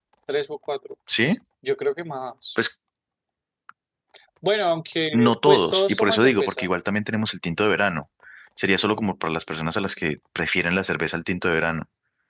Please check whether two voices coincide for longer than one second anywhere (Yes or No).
Yes